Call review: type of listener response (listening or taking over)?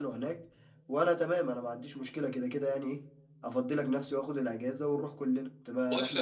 taking over